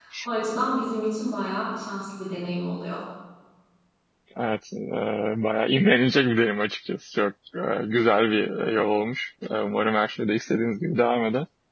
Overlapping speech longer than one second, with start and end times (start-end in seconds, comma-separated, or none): none